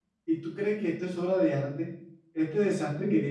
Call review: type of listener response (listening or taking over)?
listening